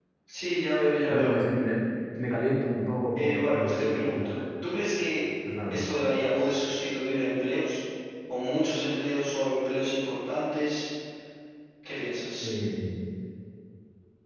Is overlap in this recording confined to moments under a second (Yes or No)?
No